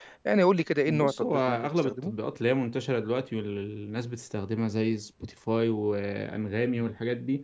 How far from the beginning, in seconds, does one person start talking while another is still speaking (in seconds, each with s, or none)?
0.9 s